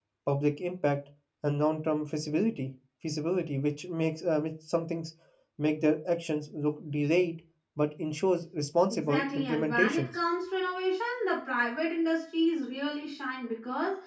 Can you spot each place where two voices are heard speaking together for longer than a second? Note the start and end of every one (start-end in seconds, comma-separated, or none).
8.9-10.1